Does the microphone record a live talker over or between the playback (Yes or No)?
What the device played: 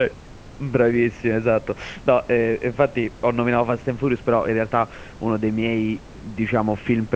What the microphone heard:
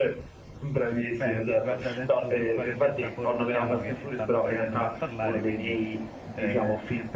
Yes